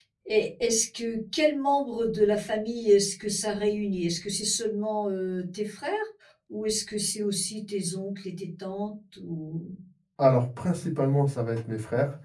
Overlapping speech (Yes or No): No